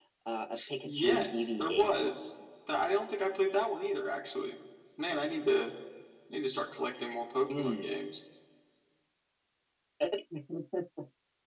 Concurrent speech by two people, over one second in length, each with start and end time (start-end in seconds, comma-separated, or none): 0.8-2.1